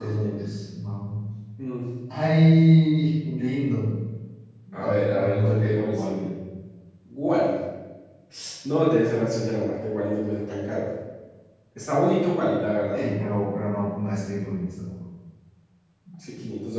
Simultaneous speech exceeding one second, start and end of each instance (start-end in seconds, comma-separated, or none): 4.8-6.3